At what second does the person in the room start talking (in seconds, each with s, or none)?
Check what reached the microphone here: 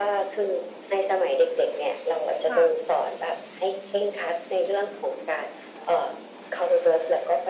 2.5 s